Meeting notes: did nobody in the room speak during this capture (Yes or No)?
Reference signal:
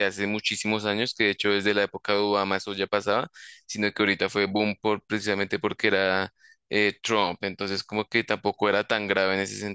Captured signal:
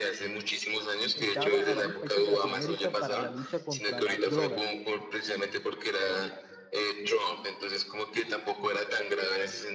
No